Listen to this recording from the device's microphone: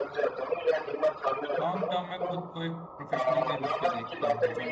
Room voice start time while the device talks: 1.6 s

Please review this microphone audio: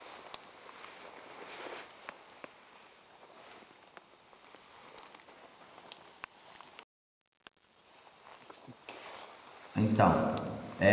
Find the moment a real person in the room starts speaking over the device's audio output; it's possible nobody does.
9.8 s

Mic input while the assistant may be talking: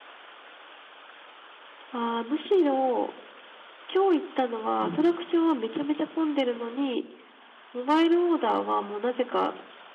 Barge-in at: 4.8 s

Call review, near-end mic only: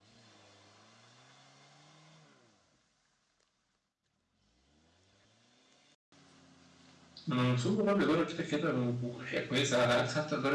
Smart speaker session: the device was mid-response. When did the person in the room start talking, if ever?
7.3 s

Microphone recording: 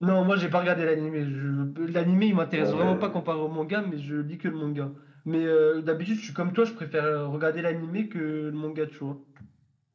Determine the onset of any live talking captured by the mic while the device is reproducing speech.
2.6 s

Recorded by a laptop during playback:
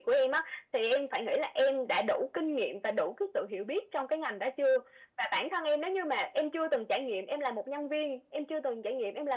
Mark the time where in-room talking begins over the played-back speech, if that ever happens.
none

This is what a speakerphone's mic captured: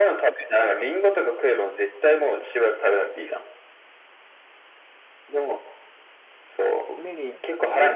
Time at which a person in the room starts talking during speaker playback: 6.8 s

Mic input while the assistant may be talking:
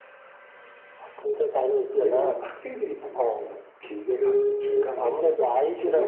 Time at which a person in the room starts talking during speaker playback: 1.9 s

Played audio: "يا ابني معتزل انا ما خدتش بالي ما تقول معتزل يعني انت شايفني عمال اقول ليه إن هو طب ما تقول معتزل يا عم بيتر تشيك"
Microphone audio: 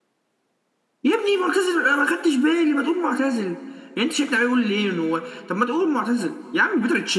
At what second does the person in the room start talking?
none

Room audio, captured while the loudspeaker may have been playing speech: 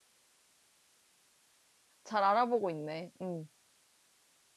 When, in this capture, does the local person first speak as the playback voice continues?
2.0 s

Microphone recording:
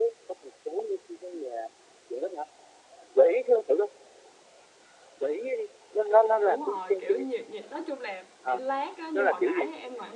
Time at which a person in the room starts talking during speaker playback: 6.4 s

